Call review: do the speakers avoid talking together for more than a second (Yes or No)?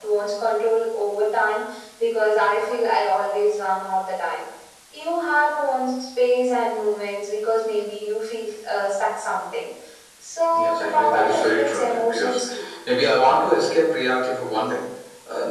No